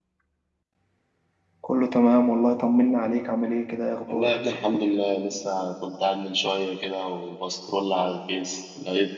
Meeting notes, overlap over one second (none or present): none